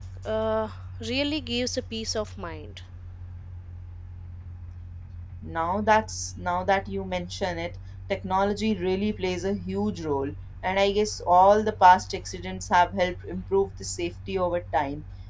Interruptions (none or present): none